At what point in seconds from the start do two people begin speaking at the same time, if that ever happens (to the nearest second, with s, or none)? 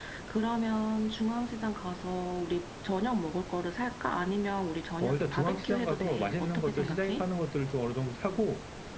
5 s